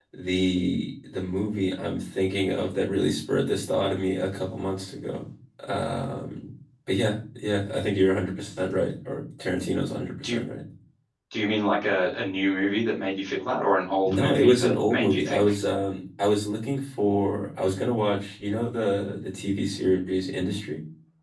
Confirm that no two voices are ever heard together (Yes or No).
No